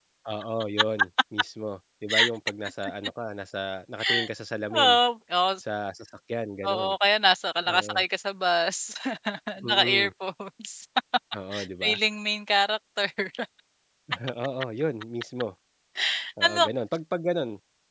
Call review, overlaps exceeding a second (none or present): none